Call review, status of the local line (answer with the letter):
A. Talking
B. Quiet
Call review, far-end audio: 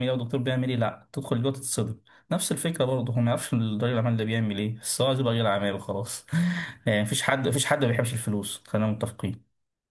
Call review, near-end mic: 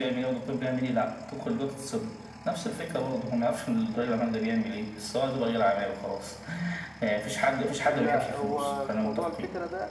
A